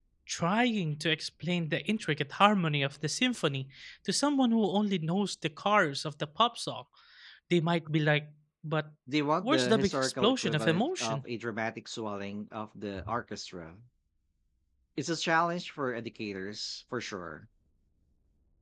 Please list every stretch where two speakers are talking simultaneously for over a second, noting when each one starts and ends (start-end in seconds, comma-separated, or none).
9.4-11.2